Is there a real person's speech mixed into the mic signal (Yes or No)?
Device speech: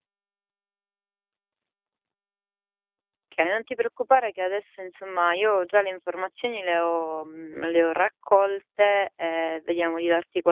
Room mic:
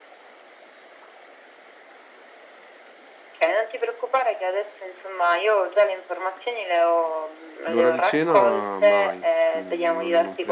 Yes